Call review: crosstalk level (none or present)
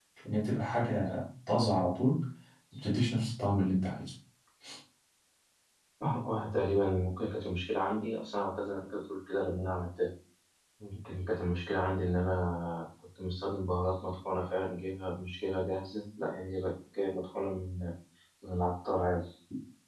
none